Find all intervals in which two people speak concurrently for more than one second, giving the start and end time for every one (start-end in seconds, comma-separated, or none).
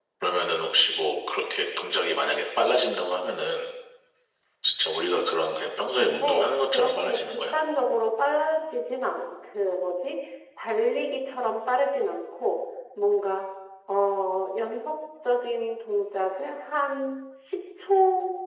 6.0-7.6